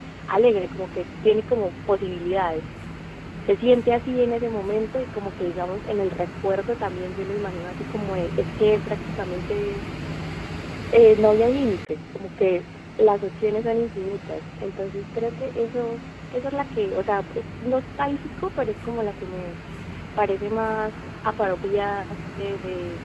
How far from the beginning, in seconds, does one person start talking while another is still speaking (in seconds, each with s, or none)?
none